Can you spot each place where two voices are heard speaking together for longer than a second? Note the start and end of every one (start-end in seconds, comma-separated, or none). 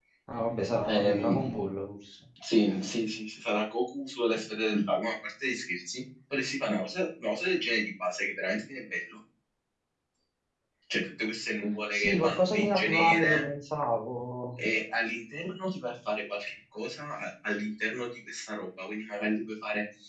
11.9-13.4